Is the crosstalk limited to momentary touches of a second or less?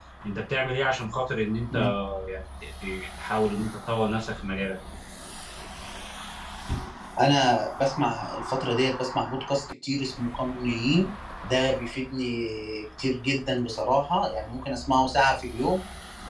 Yes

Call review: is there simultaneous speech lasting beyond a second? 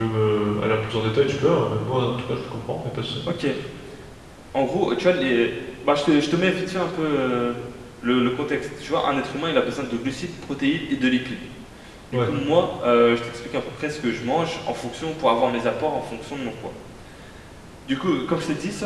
No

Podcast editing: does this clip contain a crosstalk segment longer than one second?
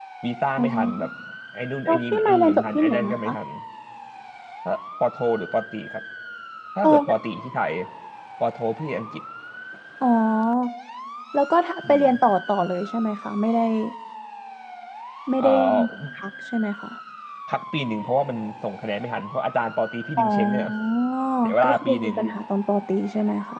Yes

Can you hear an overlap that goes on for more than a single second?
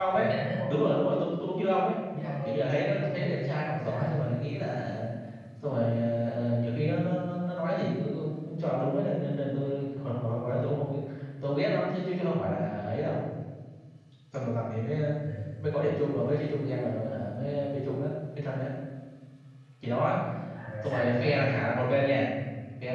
Yes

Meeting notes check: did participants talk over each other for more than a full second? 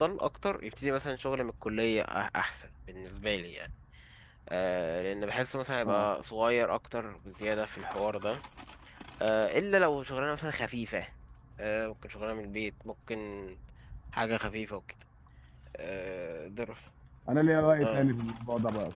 No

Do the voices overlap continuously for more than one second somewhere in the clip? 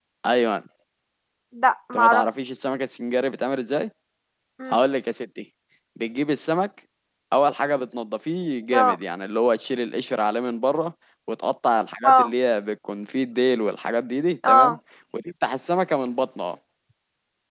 No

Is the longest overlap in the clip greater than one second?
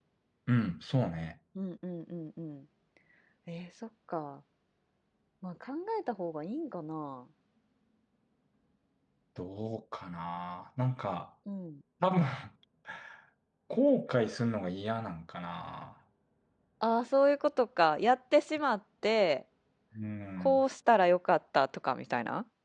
No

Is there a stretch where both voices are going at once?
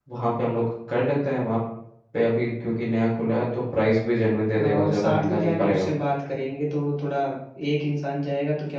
Yes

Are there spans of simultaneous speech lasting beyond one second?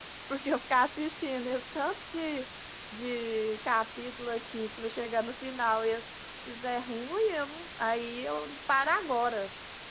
No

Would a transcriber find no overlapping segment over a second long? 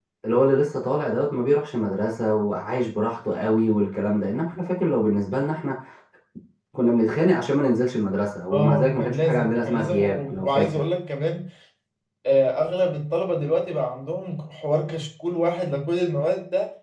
No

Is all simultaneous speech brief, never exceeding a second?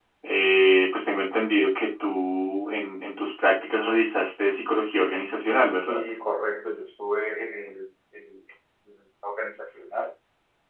Yes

